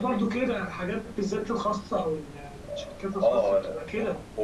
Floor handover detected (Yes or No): Yes